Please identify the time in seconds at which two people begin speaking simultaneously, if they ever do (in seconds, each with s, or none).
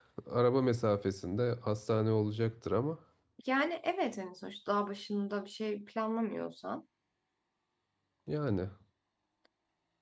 none